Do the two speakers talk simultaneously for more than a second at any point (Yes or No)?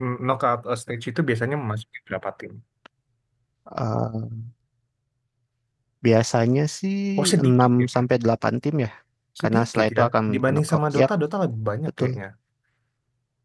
Yes